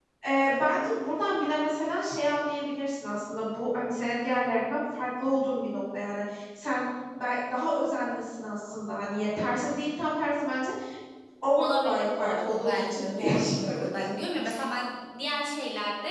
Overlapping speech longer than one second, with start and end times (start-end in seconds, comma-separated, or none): 11.6-14.1